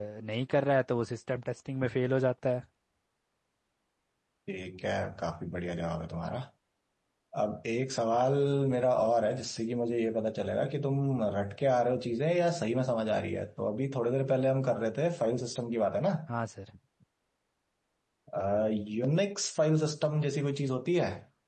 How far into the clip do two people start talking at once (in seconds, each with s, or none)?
none